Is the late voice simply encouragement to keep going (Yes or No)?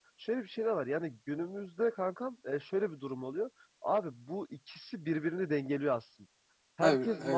Yes